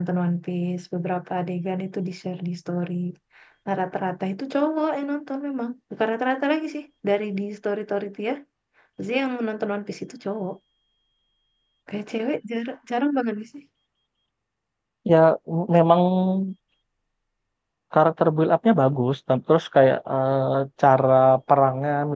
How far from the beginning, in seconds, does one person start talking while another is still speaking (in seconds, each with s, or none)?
none